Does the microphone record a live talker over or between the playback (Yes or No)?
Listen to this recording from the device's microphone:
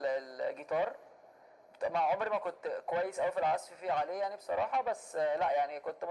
No